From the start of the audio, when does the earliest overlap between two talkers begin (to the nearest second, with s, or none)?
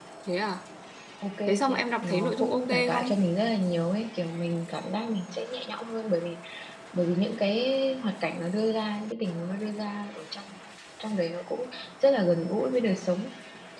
1 s